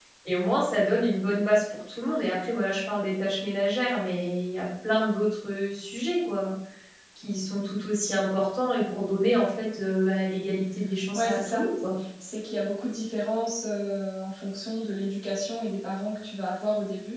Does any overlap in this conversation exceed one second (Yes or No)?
No